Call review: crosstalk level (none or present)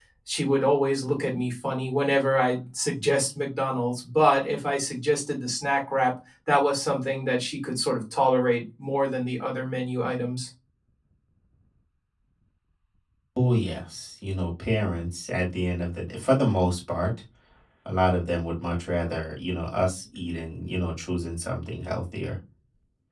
none